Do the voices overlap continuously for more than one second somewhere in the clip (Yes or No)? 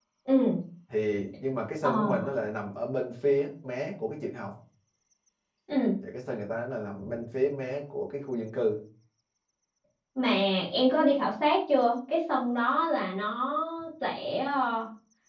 No